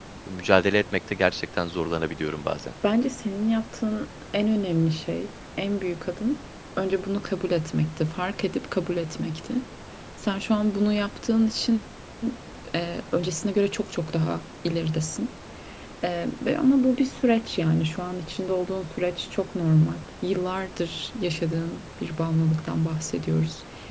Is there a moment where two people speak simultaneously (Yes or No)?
No